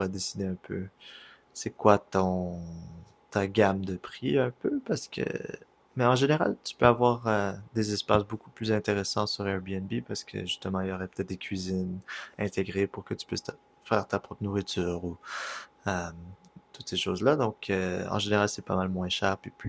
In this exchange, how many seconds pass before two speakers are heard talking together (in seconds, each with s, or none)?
none